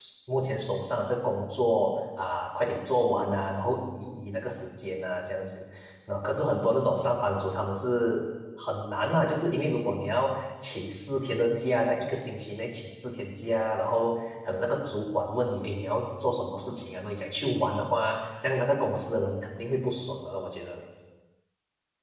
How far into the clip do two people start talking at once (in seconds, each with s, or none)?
none